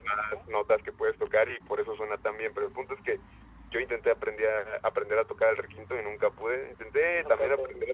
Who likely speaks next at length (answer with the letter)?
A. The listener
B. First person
B